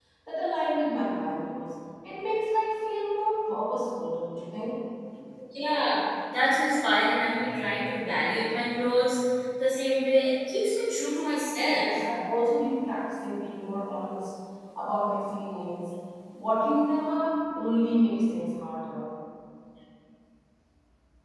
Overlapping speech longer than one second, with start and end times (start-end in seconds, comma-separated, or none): none